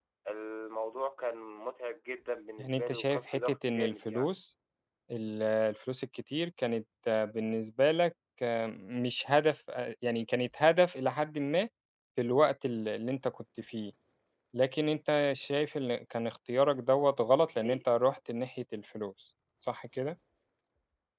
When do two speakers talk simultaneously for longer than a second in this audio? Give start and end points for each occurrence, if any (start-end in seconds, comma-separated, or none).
2.6-4.3